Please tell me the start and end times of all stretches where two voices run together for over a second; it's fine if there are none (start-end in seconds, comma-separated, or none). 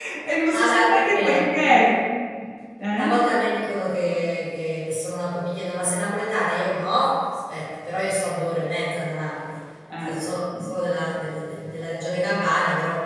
0.5-1.9